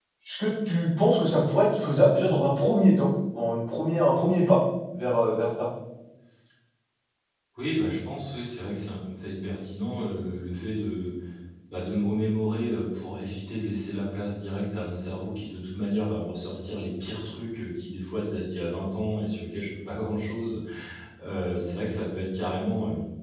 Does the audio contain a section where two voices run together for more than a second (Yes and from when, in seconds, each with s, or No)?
No